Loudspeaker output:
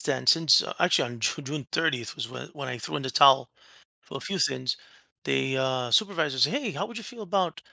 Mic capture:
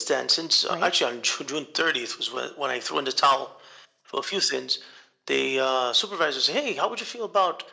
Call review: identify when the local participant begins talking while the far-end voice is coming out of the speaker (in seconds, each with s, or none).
0.7 s